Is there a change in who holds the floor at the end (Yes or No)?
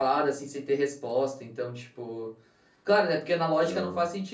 No